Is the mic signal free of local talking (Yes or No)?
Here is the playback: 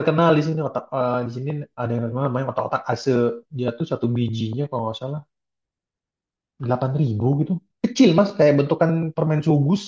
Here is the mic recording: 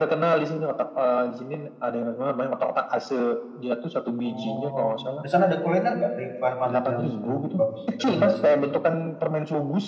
No